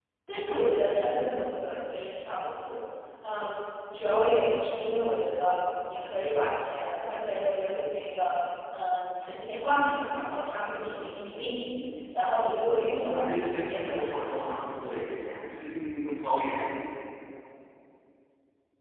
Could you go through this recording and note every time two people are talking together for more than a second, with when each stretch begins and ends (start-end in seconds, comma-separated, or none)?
13.0-14.3